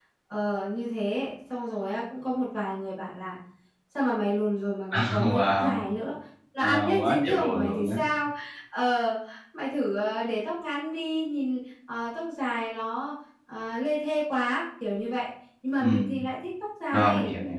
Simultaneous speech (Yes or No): Yes